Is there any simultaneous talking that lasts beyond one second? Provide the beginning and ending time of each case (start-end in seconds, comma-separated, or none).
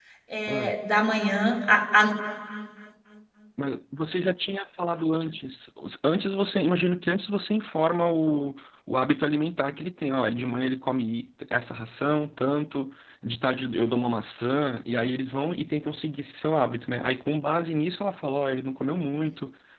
none